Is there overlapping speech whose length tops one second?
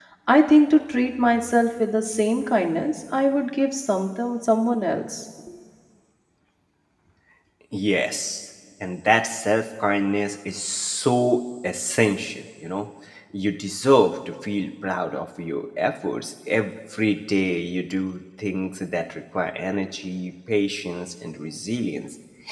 No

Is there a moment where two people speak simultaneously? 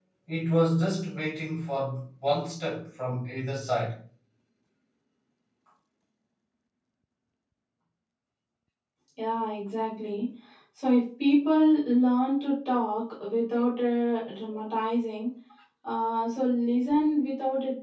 No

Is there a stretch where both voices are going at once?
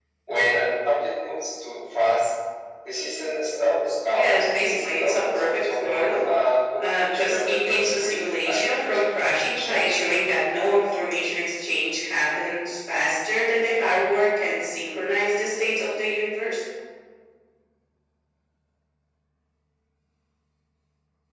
Yes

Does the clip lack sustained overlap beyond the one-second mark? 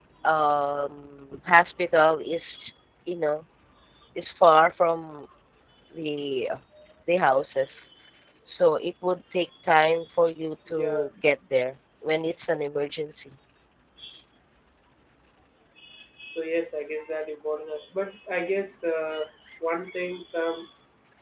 Yes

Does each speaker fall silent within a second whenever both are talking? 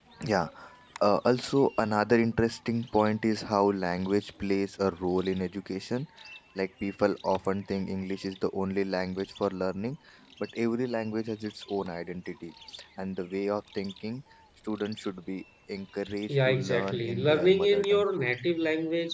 No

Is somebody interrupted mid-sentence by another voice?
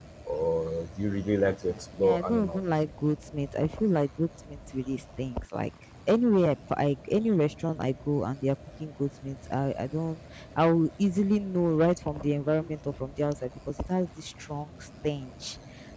Yes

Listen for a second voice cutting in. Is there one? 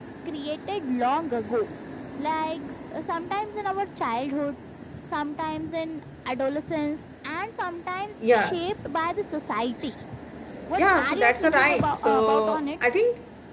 Yes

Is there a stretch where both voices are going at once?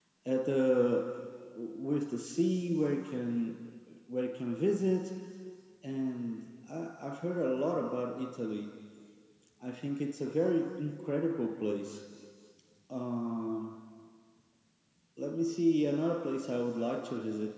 No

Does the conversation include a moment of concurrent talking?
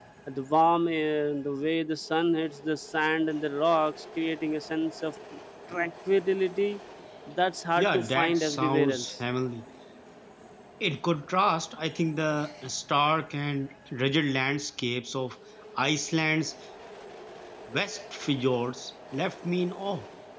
Yes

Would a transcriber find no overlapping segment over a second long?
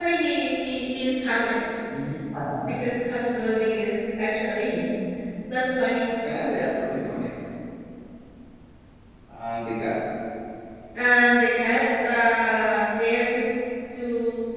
Yes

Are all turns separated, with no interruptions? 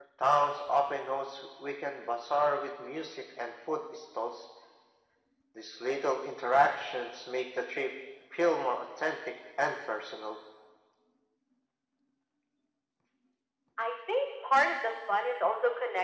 Yes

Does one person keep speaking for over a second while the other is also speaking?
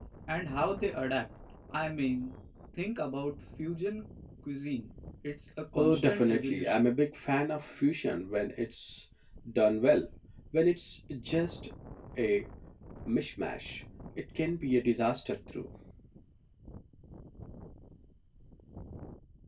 Yes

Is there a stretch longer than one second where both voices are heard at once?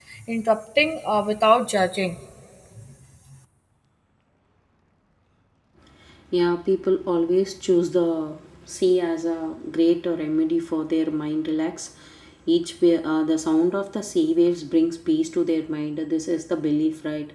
No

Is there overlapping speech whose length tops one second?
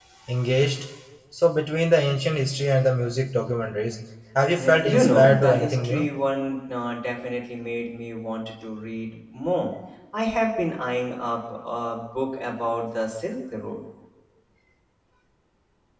Yes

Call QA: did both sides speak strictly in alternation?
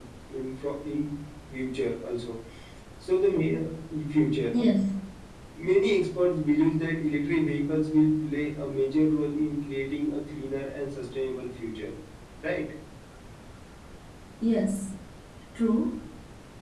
Yes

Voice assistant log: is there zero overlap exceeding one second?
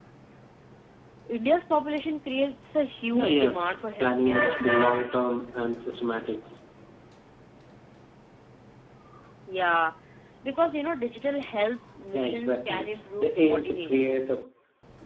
No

